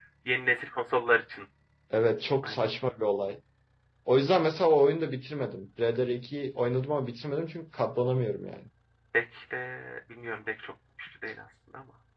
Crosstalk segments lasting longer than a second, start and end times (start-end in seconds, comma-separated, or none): none